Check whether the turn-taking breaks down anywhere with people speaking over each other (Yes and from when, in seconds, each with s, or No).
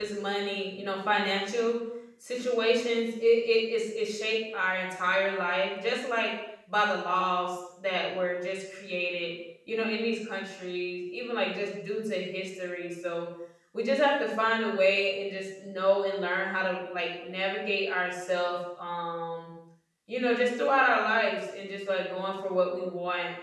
No